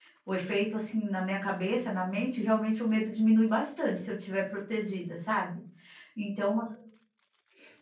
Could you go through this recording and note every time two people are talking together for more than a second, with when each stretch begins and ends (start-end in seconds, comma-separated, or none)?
none